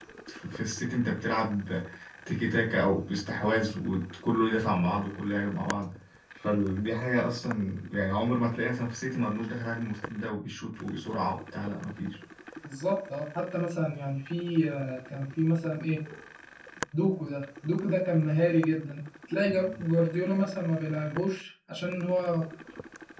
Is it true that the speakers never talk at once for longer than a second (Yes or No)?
Yes